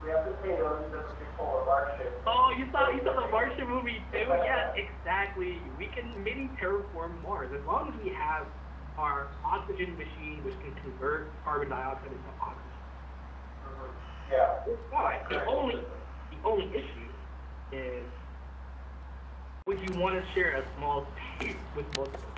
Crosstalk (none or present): present